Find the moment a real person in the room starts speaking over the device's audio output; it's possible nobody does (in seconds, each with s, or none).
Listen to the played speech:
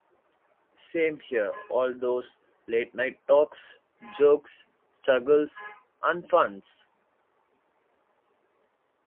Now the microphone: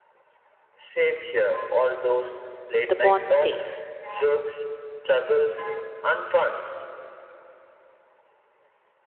2.8 s